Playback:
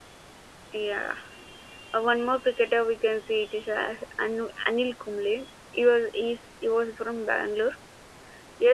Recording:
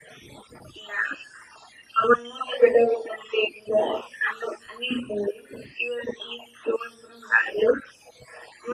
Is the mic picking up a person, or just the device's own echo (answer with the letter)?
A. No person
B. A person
A